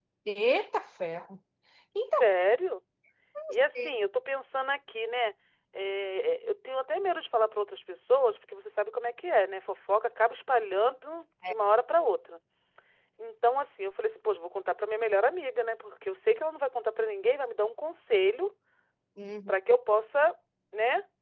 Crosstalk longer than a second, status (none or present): none